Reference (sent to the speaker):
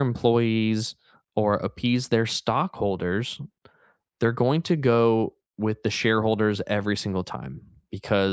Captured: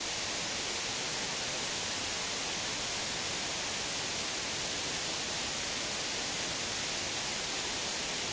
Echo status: none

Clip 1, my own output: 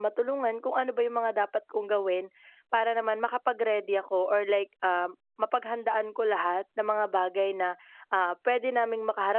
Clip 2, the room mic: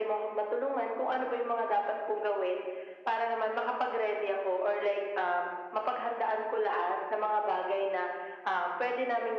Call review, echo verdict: present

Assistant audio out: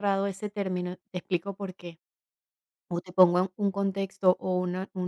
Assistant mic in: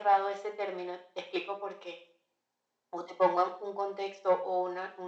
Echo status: present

